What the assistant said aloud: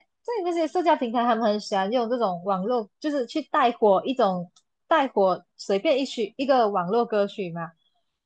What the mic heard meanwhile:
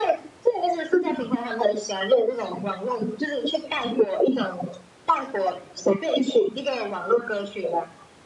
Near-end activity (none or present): none